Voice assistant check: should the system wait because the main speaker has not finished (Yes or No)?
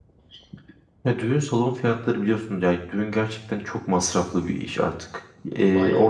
Yes